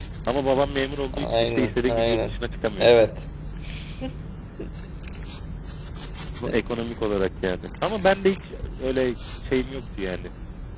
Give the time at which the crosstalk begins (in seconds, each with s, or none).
1.1 s